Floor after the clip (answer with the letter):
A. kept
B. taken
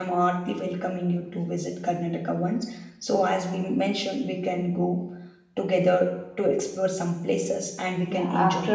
B